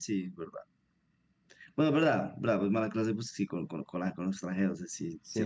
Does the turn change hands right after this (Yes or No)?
Yes